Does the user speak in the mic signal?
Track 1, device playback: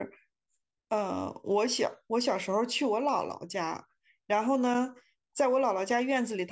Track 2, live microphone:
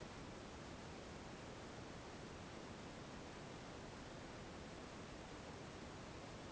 No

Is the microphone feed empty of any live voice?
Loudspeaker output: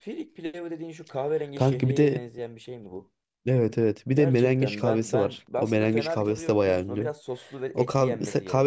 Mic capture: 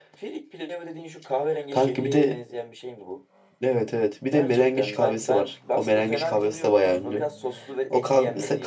Yes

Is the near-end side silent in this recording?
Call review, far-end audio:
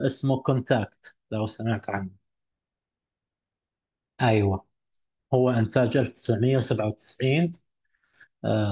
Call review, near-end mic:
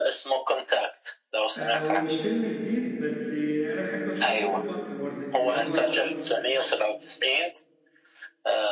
No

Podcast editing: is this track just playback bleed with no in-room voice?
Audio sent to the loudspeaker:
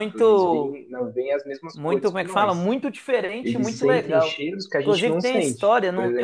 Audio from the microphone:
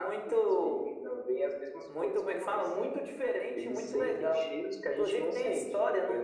Yes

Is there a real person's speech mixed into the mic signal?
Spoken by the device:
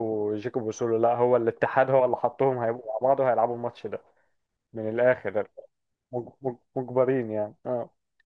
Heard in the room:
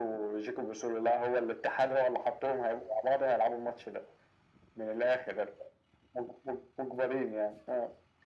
No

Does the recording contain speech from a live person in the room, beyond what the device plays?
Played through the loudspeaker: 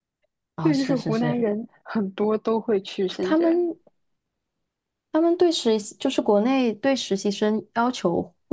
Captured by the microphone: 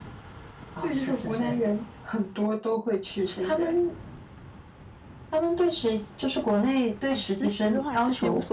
Yes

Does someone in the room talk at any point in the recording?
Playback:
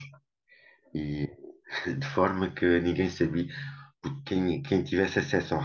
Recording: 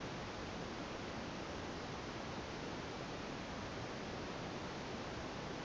No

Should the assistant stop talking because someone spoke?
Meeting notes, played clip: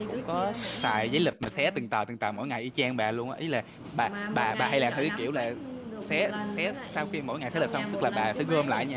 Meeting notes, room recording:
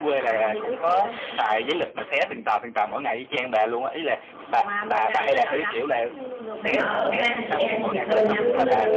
Yes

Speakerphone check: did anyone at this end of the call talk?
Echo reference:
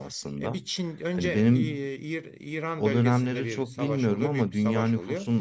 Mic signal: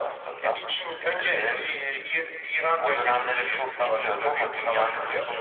No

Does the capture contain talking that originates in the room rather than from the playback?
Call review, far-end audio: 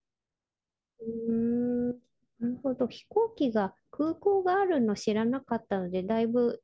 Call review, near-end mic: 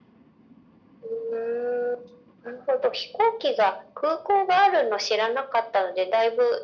No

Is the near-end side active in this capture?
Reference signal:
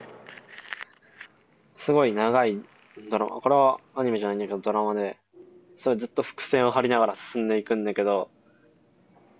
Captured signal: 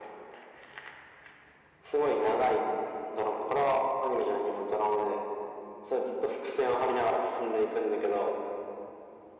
No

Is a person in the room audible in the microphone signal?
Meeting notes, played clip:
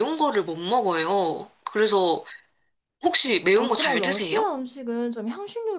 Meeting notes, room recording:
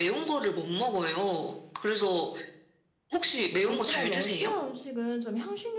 No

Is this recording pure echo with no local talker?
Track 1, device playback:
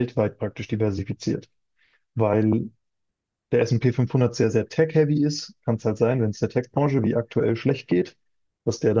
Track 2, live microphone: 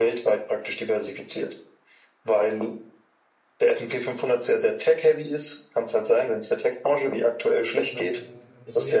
No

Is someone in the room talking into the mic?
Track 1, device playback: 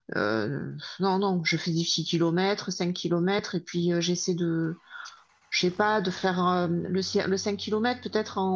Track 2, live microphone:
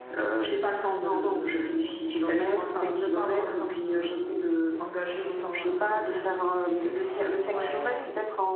Yes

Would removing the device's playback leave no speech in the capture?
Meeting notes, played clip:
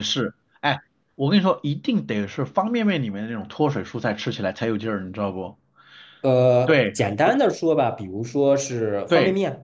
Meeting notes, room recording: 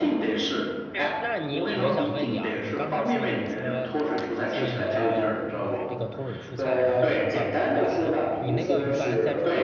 No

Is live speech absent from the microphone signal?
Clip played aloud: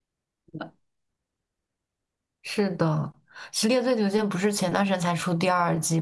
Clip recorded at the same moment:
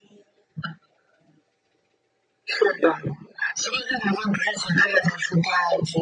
Yes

